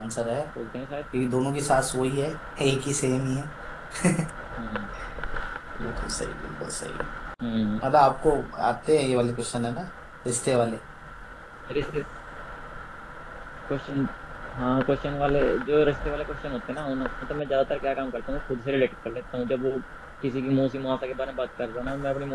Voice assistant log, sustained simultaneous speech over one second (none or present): none